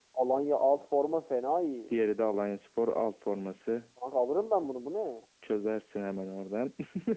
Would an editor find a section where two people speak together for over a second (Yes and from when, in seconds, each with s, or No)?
No